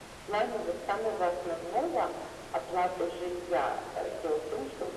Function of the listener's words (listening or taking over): listening